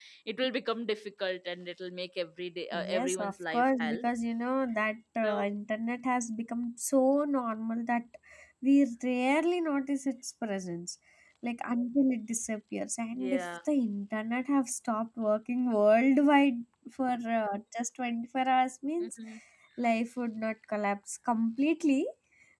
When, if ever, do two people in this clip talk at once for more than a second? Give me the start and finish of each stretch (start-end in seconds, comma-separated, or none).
2.7-4.0